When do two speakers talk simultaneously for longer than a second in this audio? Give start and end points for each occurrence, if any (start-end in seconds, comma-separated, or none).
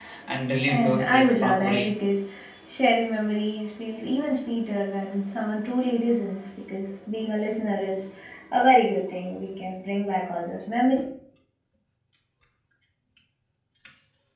0.7-2.0